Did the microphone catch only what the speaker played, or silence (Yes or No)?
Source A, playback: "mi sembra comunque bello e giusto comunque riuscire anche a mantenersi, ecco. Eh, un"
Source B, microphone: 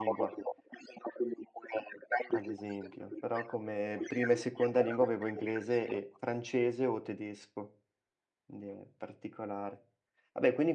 No